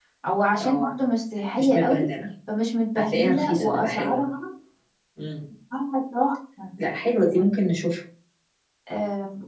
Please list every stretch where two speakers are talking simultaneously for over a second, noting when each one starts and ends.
3.0-4.2

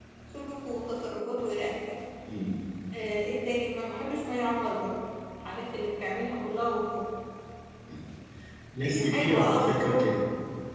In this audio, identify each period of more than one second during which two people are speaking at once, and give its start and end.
8.8-10.1

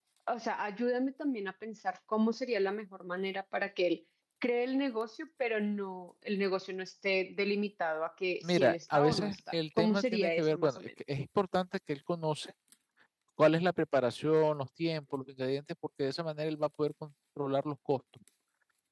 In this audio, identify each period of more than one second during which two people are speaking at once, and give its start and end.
8.4-10.8

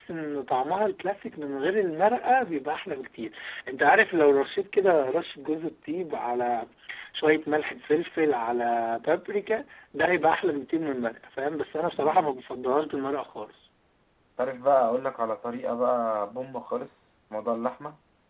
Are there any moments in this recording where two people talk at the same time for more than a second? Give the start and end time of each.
none

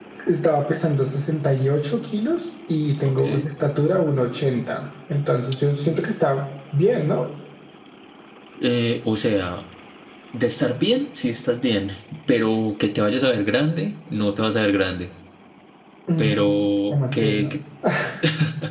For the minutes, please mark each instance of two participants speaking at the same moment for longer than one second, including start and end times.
16.2-17.6

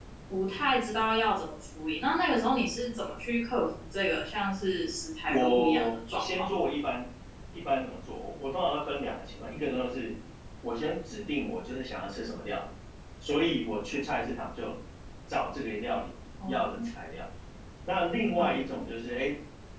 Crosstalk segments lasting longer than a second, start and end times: 5.3-6.6

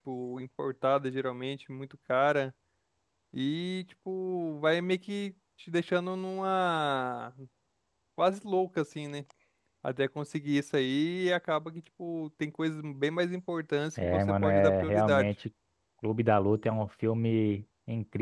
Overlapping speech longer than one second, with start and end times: 14.0-15.3

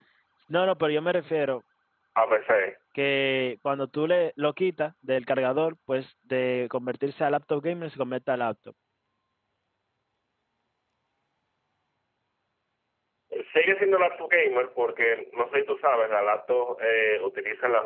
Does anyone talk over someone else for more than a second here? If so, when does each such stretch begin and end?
none

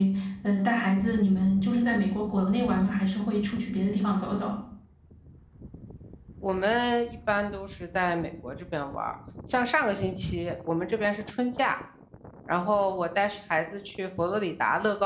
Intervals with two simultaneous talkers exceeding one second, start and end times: none

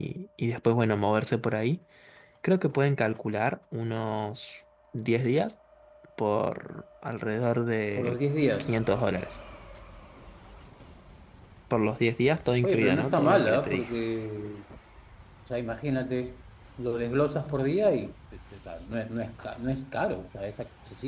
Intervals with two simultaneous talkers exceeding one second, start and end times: 12.6-13.9

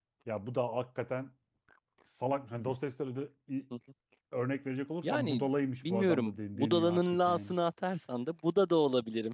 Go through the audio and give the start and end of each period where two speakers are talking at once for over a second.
5.9-7.5

